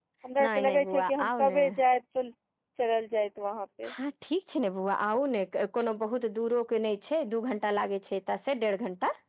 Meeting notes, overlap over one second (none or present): present